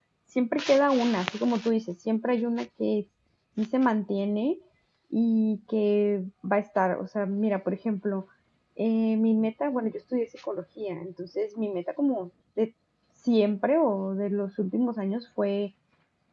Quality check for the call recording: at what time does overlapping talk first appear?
none

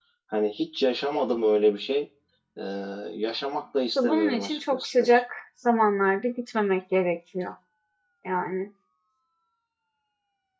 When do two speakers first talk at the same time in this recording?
4 s

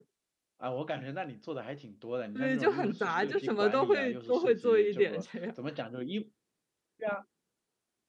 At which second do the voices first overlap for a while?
2 s

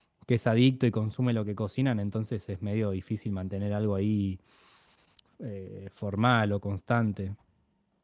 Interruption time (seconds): none

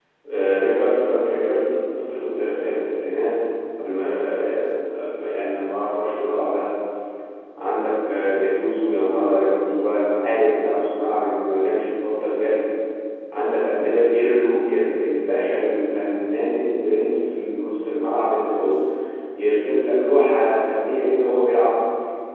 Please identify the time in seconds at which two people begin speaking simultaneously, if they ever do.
none

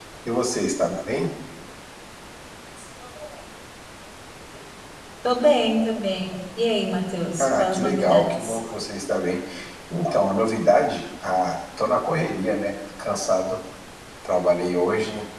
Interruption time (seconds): 7 s

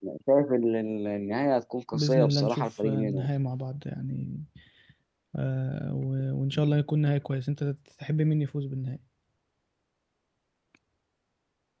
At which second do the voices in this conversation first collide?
2 s

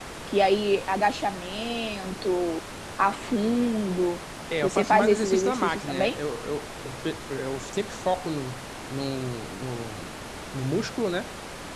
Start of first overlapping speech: 5 s

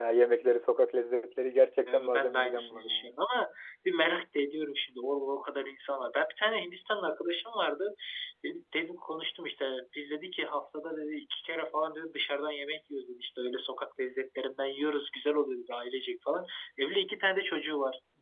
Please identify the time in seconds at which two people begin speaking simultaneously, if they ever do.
2 s

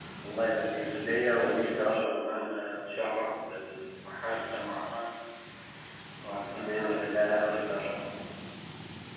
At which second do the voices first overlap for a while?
1 s

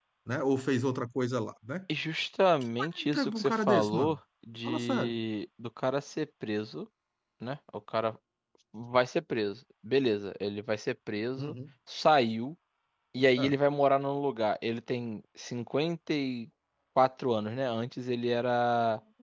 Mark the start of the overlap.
3 s

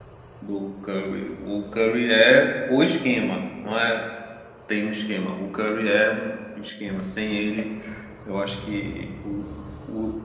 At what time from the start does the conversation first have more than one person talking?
none

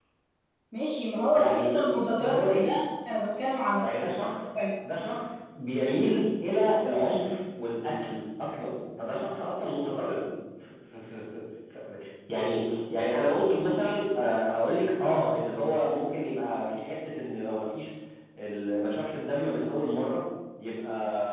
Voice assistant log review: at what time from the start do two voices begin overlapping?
1 s

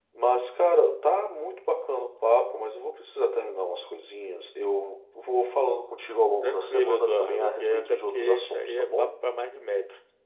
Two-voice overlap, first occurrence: 6 s

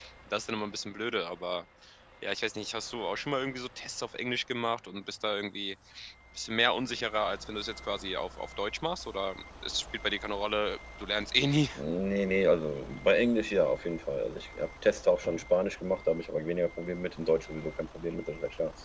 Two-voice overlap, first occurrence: none

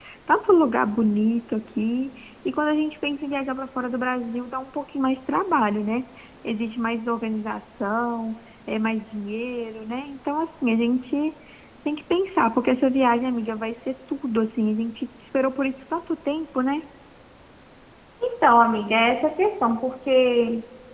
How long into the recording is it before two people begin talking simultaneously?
none

